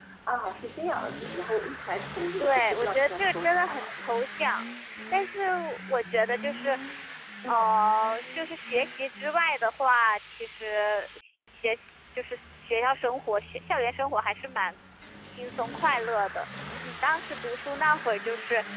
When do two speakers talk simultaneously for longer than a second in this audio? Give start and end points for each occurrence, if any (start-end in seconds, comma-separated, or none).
2.4-3.8